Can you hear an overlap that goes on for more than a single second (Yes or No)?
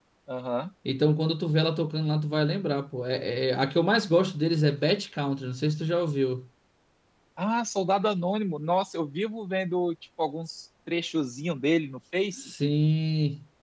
No